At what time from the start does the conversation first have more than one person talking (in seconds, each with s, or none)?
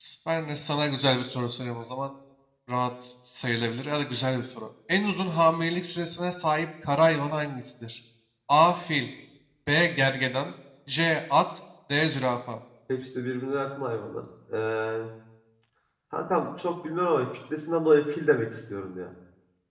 none